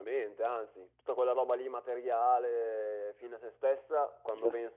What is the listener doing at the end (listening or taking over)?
listening